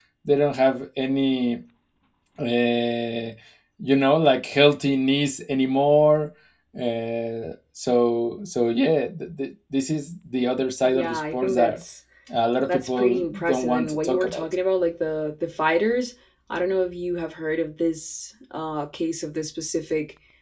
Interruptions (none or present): present